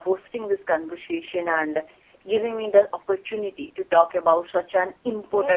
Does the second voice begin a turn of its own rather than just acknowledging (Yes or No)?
No